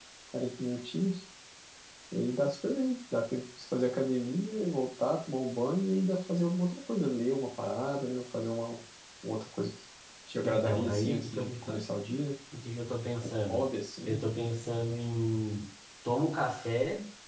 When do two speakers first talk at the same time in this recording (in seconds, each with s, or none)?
10.4 s